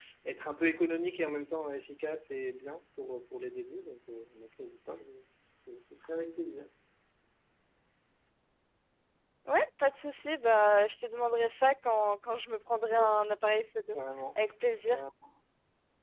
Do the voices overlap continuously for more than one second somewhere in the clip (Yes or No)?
No